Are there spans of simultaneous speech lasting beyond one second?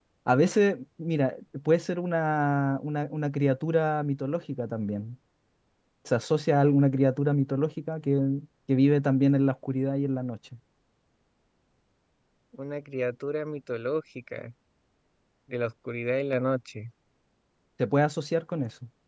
No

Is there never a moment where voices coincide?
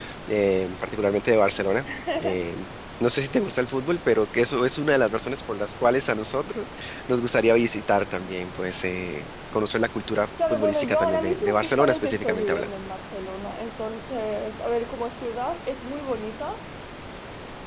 No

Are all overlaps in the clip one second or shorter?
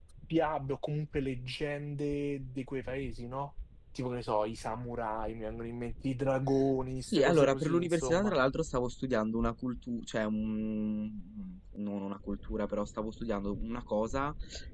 No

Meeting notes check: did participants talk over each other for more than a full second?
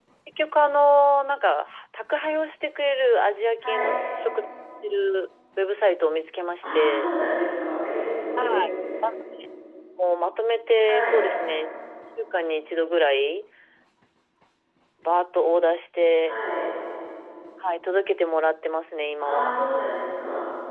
No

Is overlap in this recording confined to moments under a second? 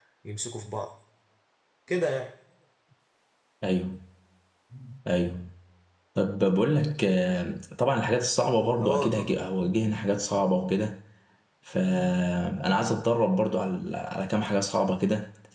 Yes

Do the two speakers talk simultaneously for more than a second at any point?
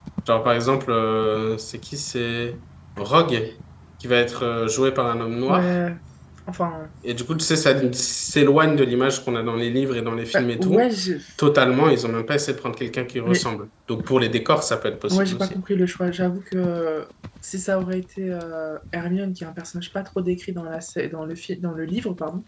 No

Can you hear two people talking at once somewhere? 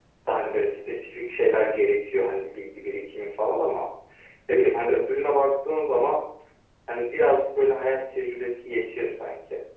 No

